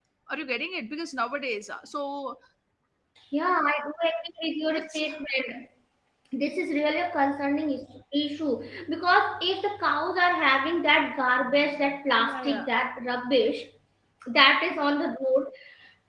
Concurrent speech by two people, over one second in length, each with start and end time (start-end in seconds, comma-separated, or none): none